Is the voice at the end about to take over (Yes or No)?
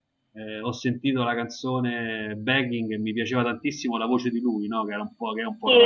Yes